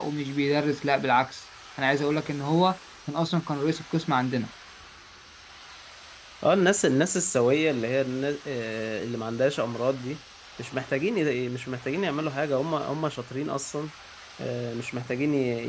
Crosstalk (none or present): none